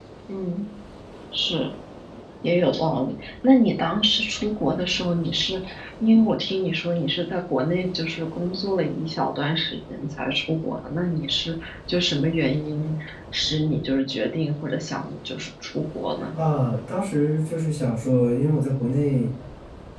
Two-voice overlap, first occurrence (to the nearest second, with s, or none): none